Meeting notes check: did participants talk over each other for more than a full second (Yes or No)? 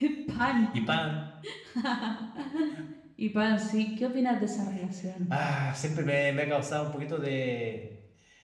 No